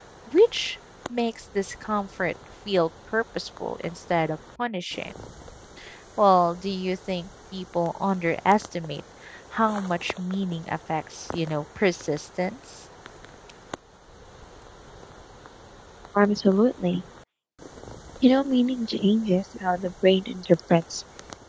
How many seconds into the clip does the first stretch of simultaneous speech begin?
none

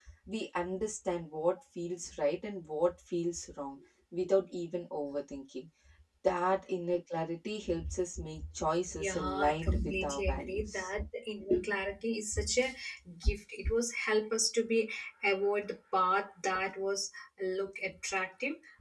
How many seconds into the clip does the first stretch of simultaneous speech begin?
9 s

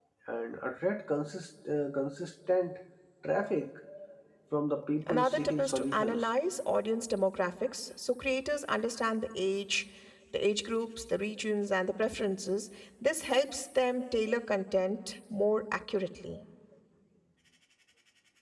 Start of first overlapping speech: 5 s

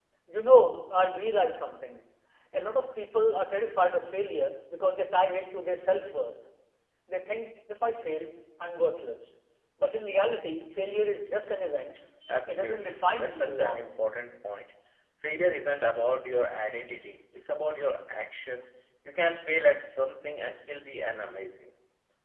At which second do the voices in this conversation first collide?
12 s

